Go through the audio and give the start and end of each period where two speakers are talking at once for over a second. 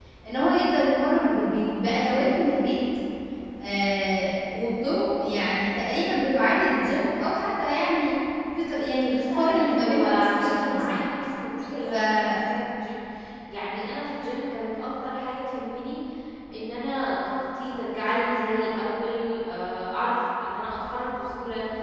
8.9-11.0

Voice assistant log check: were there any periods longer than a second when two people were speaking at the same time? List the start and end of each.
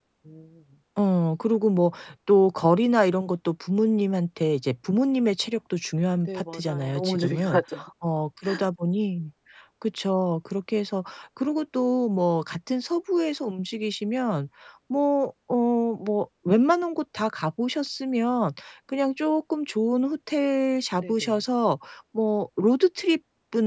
6.2-7.6

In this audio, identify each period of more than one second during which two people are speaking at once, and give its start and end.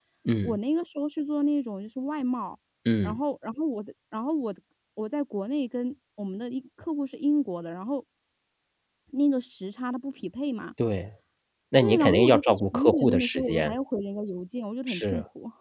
11.8-13.8

